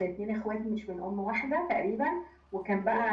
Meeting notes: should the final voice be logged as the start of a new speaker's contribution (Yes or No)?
No